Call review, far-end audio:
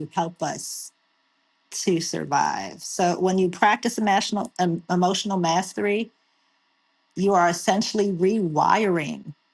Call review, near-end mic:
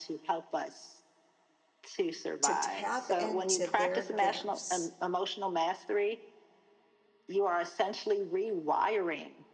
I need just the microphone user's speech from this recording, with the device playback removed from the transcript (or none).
to tap into their gifts